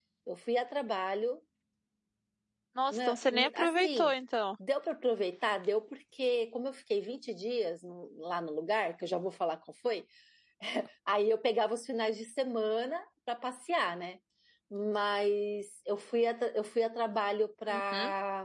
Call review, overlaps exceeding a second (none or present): present